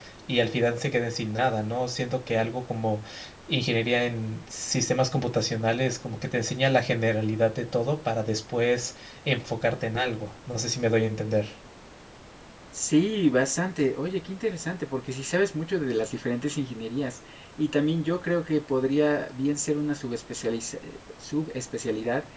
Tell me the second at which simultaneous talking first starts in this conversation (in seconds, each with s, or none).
none